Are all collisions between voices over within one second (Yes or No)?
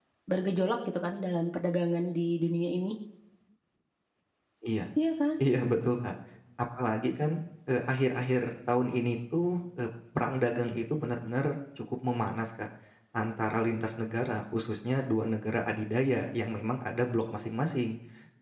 Yes